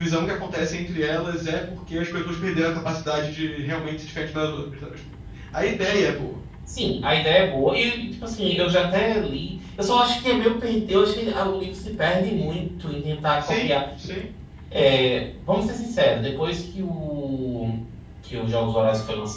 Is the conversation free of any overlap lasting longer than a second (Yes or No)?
Yes